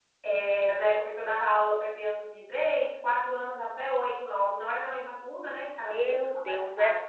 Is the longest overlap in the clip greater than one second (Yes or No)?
Yes